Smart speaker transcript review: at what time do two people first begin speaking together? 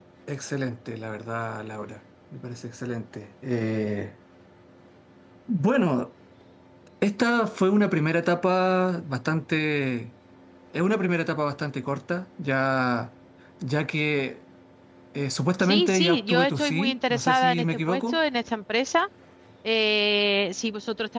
15.6 s

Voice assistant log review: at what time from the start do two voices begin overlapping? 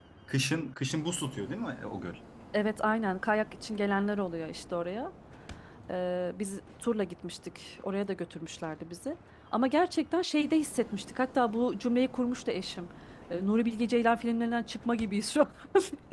none

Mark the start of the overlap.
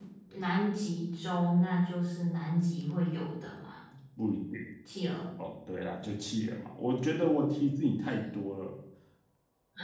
none

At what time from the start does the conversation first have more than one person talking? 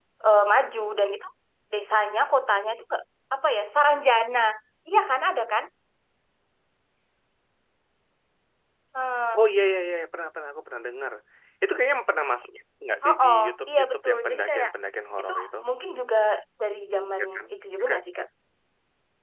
13.1 s

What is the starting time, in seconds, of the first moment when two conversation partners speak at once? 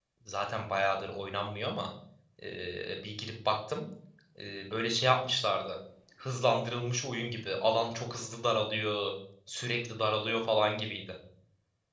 none

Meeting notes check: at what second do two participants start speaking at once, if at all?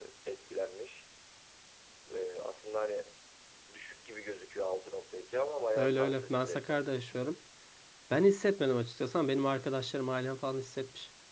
5.8 s

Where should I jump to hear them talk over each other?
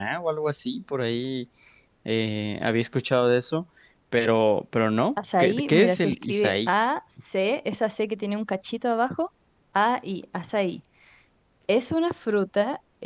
5.2 s

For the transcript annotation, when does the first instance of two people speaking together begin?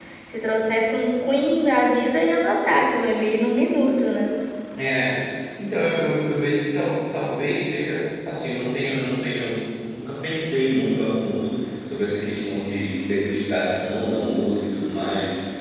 none

